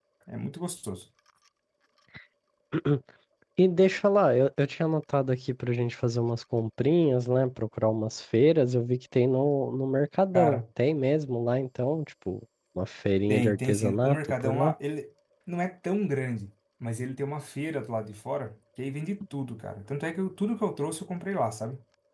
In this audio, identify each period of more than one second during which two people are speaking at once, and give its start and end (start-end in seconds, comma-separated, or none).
13.3-14.7